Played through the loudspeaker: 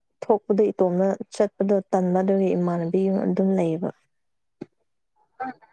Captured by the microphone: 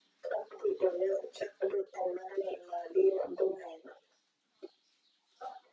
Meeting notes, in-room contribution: none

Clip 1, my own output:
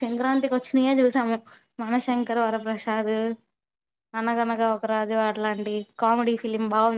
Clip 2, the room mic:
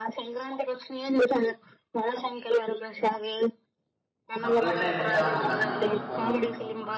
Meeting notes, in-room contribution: present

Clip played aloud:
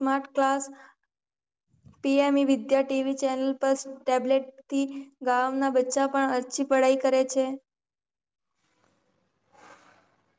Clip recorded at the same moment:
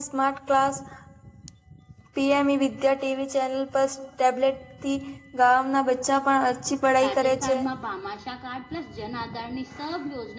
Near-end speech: present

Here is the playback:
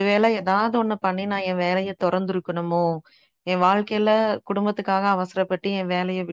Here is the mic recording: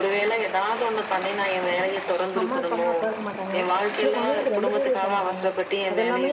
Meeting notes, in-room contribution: present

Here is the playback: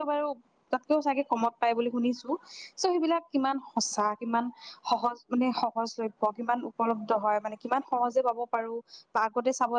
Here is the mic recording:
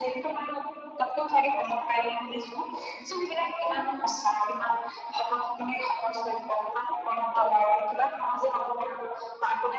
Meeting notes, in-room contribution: none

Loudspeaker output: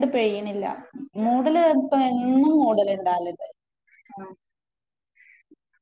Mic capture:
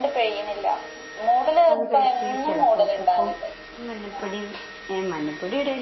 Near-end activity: present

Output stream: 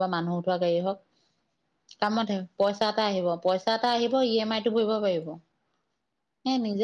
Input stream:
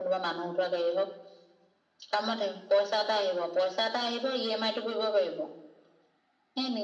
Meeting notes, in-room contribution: none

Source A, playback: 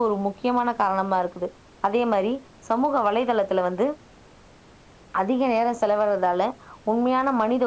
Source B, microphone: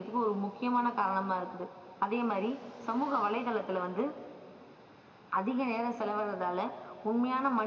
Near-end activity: none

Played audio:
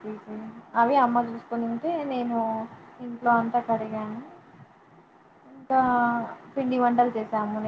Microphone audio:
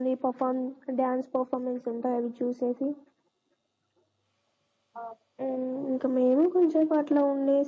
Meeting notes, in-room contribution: present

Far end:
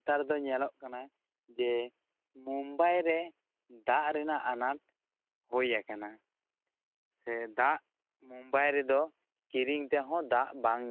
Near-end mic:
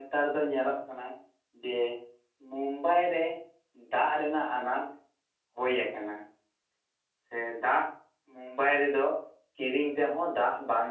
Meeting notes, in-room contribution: none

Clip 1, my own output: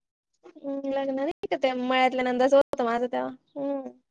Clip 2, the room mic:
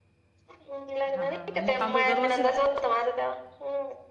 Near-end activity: present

